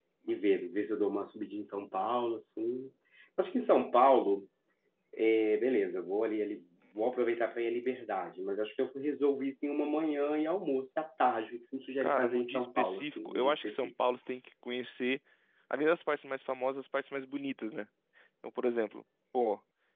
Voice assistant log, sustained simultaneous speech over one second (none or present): present